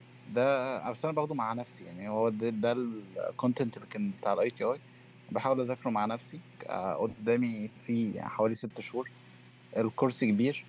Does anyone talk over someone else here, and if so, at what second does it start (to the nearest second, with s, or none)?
none